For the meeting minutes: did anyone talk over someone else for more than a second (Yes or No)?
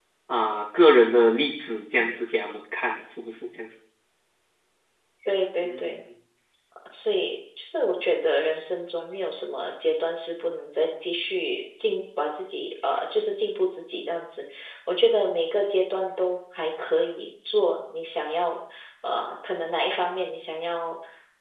No